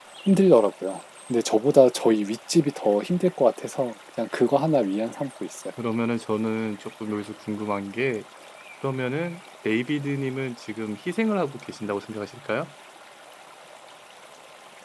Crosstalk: none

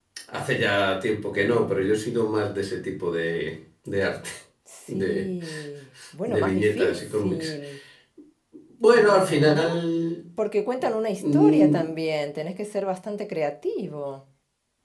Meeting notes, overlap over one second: present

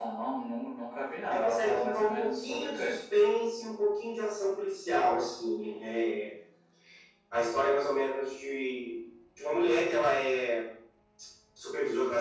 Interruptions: present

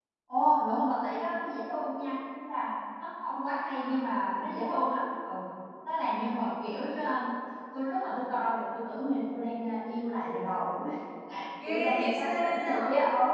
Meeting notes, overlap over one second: present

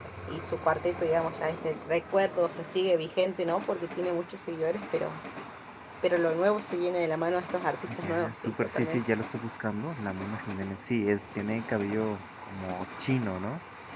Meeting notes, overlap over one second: present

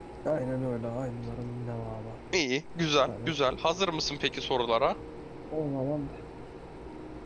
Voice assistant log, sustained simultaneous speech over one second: none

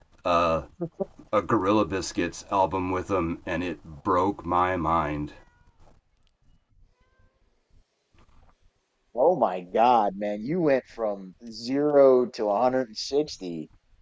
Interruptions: none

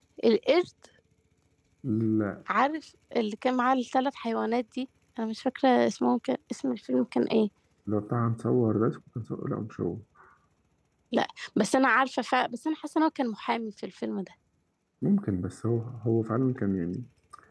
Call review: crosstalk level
none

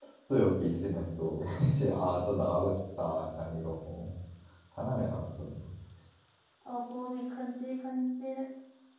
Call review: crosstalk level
none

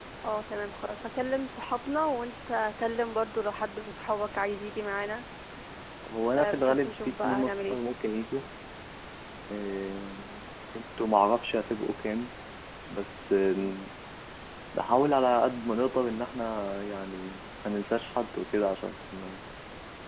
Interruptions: present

